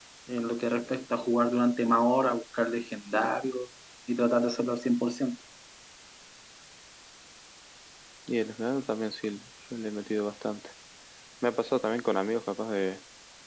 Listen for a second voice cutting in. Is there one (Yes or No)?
No